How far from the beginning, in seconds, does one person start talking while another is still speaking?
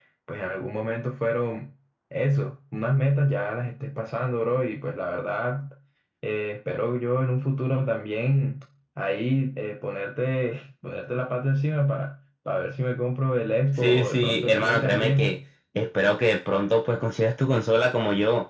13.7 s

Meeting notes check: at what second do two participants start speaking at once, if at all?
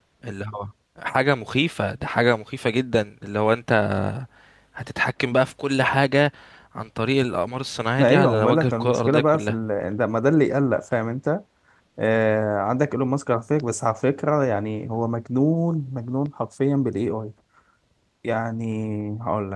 8.0 s

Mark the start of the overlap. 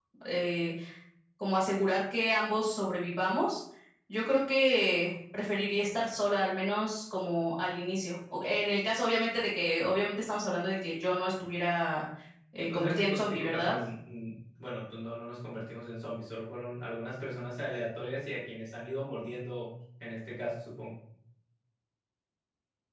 12.6 s

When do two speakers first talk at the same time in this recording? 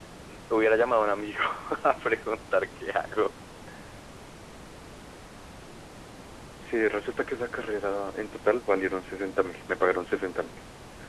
none

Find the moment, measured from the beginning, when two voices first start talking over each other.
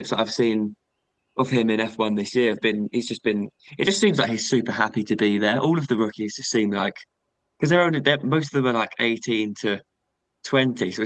none

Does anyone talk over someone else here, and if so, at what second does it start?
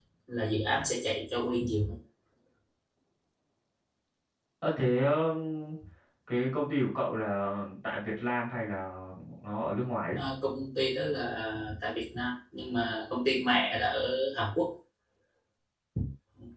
none

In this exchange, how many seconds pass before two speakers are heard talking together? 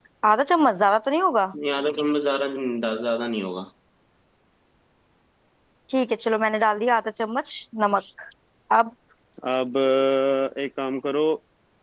none

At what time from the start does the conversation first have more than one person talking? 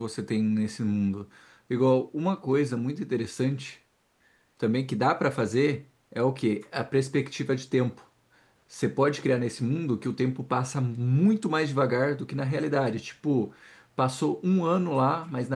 none

